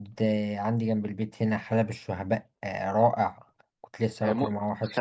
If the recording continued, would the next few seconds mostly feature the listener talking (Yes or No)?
Yes